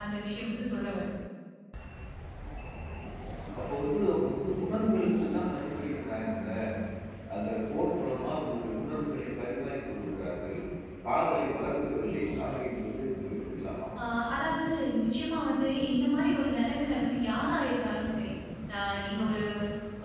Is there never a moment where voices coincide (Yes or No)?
Yes